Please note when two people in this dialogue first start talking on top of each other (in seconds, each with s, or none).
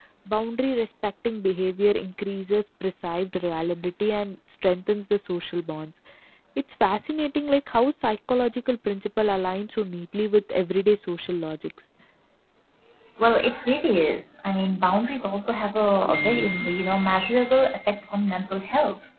none